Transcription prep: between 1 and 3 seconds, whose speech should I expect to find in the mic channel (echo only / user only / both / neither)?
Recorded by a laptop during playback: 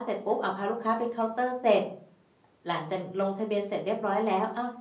echo only